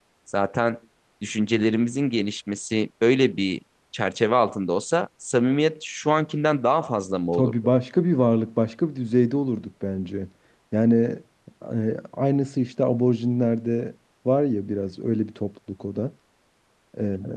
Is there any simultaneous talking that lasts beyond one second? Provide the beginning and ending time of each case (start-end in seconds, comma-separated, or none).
none